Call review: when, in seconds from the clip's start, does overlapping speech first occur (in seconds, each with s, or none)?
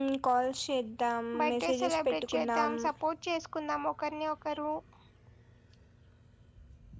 1.3 s